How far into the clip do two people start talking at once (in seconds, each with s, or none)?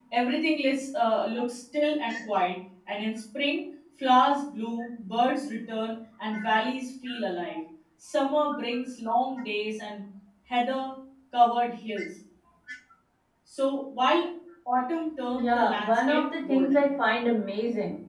15.3 s